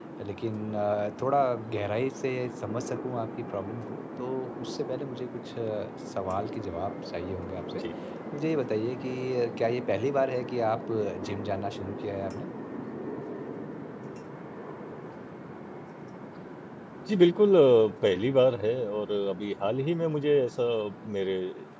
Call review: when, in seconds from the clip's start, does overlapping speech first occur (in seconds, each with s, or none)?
none